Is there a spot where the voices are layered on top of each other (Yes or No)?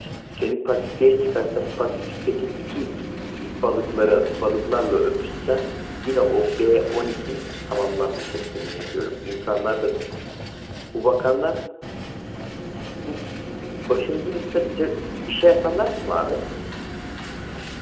No